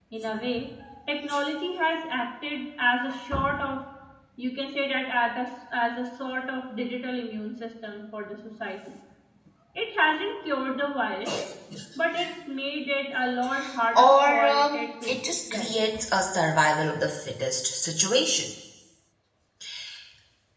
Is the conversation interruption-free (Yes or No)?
No